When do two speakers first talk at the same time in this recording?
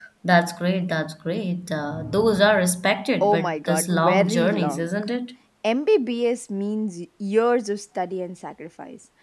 3 s

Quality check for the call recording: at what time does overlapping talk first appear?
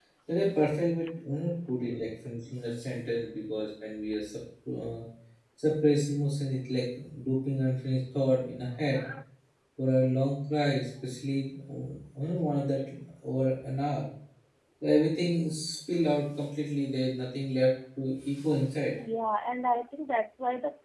none

